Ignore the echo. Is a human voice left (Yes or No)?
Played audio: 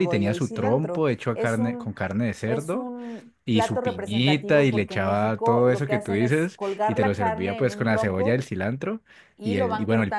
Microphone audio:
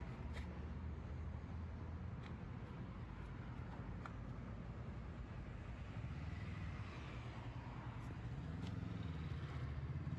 No